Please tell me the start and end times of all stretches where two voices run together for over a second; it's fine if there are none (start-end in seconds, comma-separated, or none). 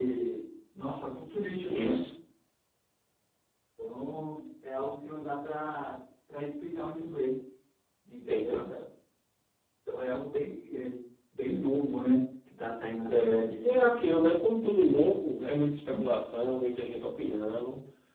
13.1-14.3